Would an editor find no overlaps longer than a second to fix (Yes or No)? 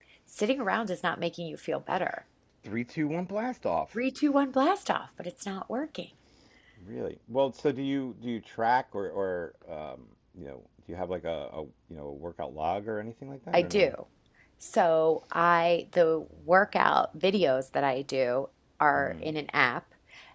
Yes